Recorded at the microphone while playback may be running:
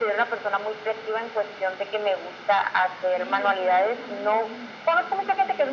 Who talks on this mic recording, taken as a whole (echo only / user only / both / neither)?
both